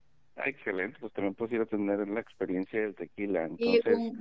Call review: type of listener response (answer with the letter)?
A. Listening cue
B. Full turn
B